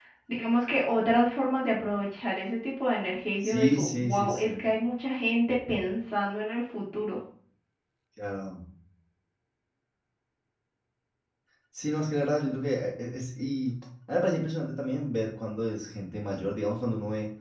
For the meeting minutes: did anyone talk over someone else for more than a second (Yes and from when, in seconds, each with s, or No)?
Yes, from 3.4 s